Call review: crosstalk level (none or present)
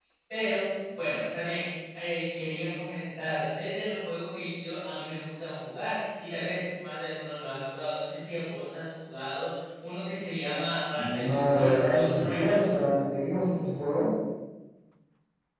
present